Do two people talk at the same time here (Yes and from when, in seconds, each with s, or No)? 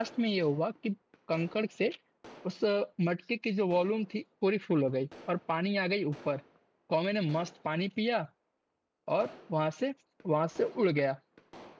No